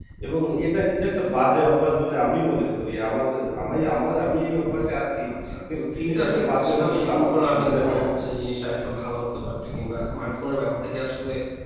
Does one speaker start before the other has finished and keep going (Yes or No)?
Yes